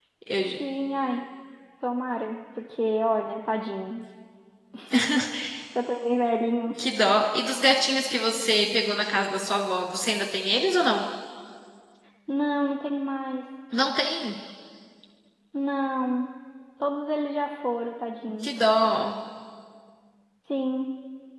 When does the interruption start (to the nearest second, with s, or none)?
none